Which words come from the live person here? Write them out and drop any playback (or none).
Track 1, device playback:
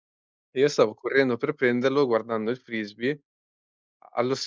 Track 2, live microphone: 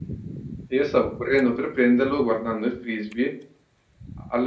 none